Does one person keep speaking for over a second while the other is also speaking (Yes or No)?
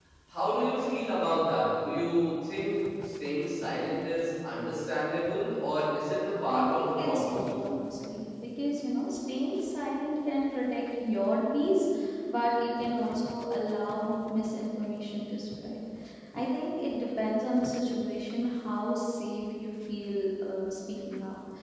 Yes